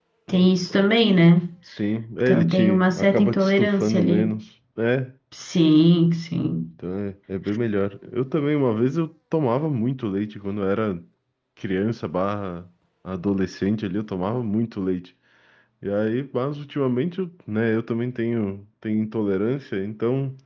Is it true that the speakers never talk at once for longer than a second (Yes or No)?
No